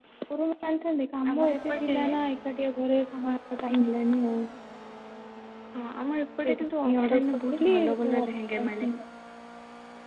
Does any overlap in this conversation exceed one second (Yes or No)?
Yes